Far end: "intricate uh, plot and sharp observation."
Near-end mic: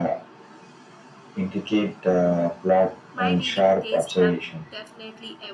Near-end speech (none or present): present